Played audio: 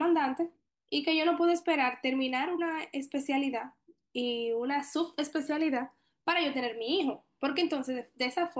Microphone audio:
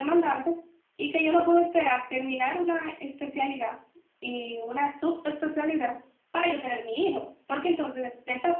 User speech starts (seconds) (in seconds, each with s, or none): none